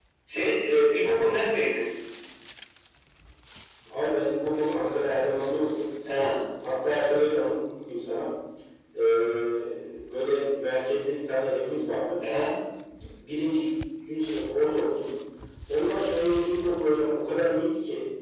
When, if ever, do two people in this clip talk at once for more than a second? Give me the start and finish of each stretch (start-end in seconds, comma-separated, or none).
none